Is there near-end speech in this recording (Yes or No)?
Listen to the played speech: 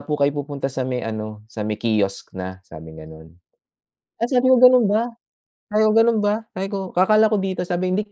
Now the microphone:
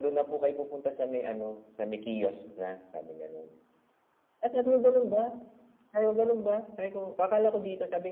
No